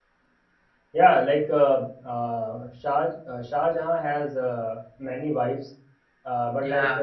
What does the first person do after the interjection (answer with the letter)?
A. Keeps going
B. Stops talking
A